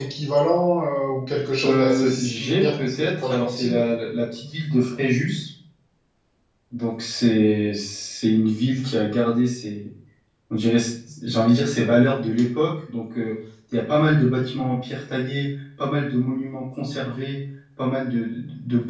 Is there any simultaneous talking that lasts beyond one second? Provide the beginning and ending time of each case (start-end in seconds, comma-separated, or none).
1.6-3.8